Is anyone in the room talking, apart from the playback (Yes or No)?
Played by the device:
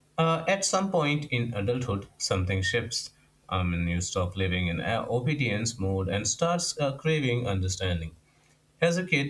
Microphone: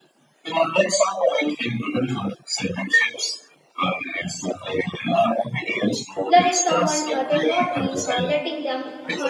Yes